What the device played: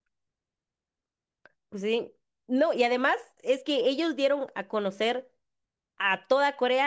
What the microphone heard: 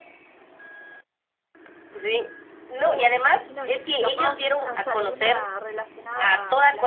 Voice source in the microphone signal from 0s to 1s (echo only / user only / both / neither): neither